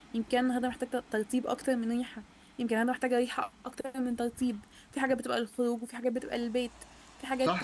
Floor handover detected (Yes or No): Yes